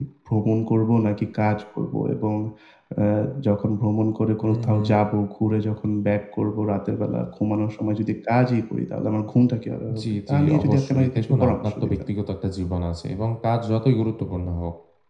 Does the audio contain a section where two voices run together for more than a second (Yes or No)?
Yes